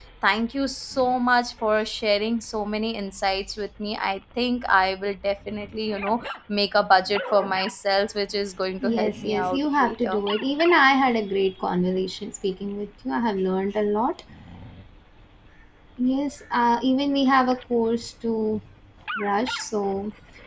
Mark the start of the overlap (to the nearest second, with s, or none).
9 s